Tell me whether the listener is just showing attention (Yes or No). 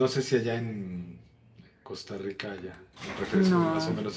Yes